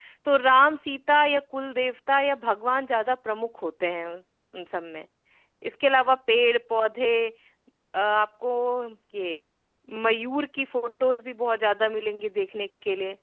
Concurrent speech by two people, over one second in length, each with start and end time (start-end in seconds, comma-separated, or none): none